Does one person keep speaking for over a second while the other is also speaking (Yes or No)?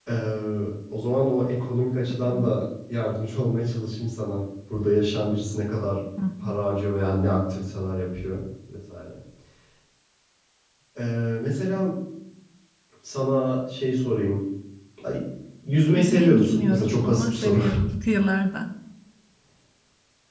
Yes